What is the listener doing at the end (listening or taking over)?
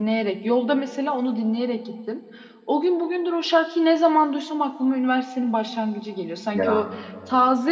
listening